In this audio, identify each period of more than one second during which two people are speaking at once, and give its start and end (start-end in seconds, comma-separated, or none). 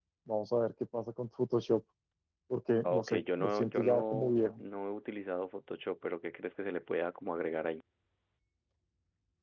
2.8-4.6